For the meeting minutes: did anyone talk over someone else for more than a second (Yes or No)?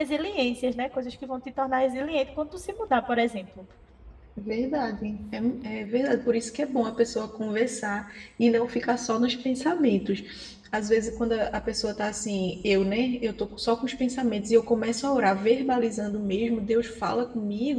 No